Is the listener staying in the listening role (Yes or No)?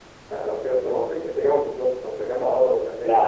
No